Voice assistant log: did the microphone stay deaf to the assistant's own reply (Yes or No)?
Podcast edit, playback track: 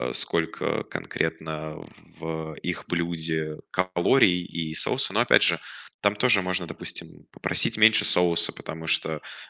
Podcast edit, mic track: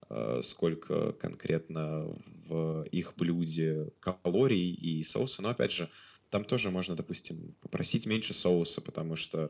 No